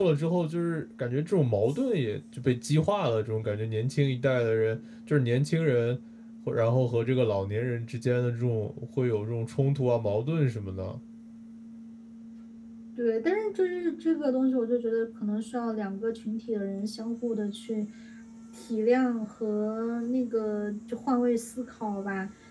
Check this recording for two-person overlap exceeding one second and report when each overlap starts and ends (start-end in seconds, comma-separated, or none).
none